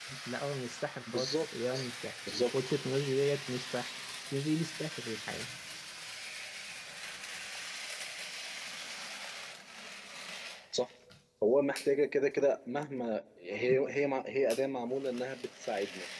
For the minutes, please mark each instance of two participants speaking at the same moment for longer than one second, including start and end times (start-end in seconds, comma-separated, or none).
none